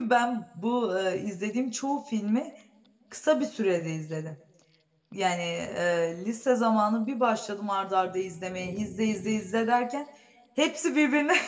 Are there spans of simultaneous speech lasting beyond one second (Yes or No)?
No